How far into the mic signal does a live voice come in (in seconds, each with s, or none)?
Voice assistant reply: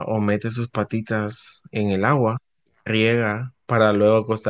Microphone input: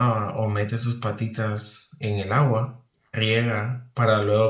none